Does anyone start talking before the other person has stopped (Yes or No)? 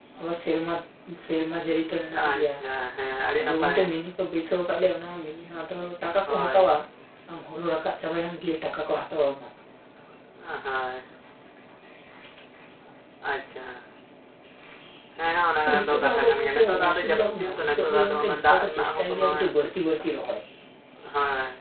Yes